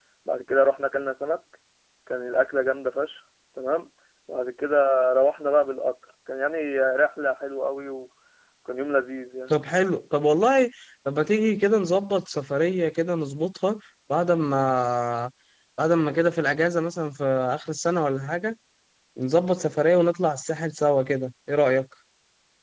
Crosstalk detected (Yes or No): No